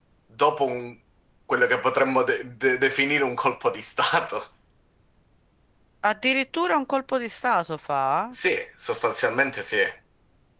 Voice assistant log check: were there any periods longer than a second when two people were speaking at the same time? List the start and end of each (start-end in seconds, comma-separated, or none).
none